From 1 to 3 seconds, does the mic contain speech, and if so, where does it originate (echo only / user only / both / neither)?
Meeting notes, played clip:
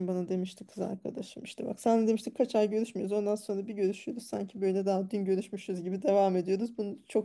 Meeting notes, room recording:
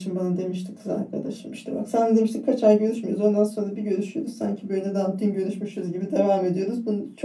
echo only